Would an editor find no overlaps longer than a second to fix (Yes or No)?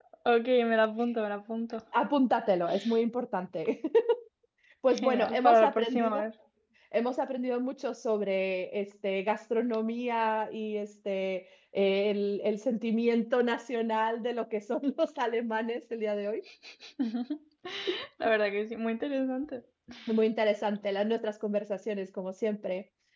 No